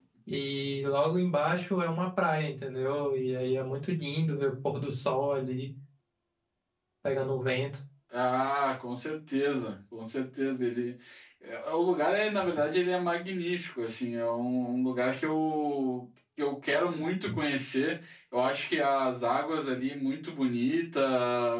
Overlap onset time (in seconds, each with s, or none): none